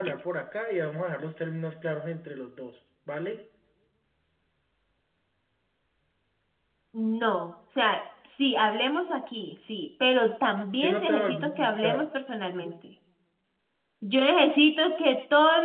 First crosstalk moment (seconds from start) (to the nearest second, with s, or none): 11 s